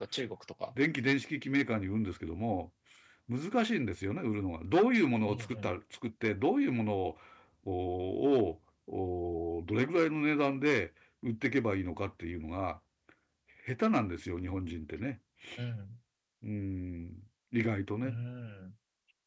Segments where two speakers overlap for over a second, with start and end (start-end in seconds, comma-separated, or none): none